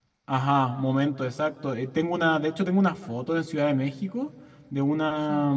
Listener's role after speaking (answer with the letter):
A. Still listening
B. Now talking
A